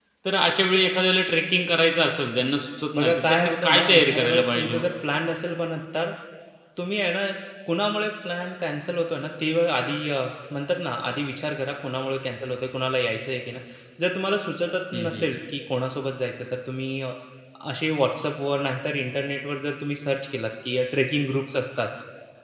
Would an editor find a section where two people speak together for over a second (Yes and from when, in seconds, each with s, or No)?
Yes, from 3.0 s